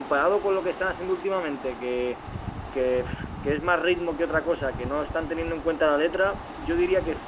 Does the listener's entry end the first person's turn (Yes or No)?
No